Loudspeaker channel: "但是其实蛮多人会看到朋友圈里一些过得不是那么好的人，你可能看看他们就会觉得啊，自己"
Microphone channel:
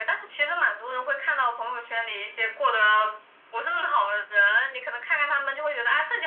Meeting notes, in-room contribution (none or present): none